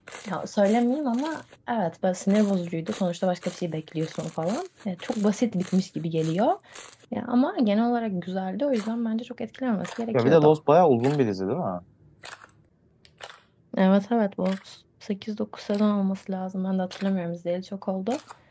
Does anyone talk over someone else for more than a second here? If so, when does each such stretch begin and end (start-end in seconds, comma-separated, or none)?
none